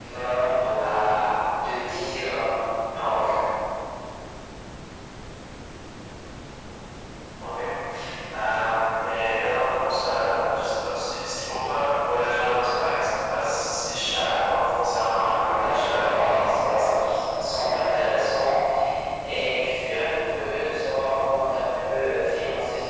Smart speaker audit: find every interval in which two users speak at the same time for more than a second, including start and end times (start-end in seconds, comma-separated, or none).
15.4-17.1